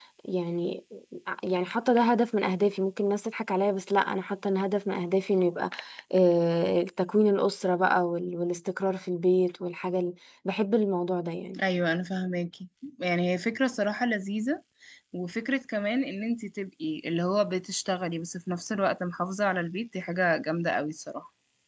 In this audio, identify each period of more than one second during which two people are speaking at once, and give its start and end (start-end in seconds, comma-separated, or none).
none